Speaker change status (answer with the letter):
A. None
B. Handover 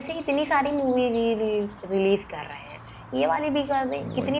A